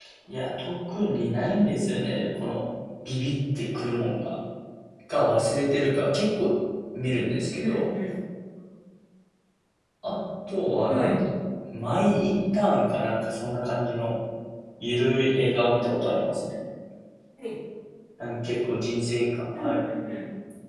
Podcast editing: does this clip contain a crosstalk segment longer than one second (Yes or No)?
No